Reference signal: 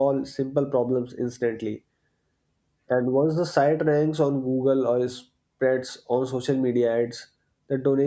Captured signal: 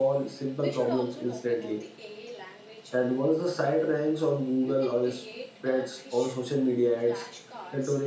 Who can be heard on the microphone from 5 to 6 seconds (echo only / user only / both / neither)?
both